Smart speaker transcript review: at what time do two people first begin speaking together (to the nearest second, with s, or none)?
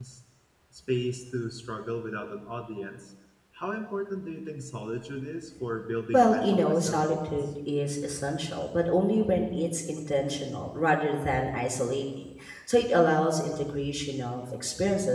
6 s